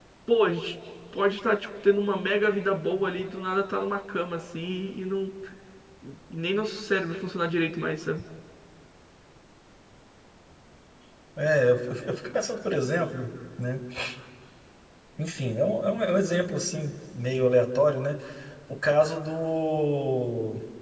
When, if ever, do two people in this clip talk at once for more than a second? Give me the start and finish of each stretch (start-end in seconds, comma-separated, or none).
none